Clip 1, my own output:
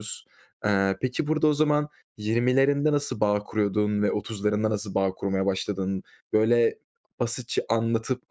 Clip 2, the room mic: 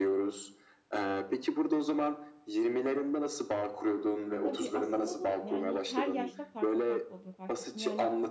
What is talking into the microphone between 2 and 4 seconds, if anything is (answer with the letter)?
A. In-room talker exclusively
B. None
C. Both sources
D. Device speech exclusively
D